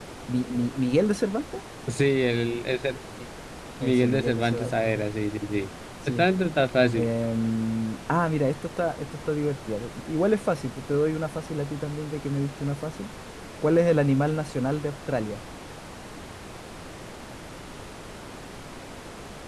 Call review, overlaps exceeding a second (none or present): present